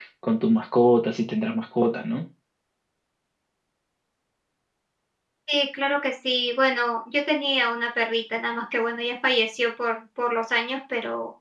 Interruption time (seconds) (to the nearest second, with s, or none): none